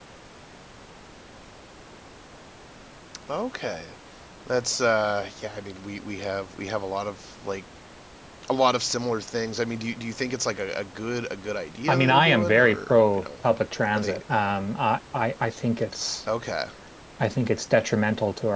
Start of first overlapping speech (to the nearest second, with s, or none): 12 s